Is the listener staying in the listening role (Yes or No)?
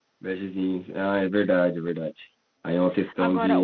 No